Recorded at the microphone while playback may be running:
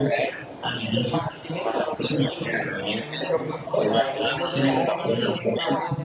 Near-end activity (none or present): present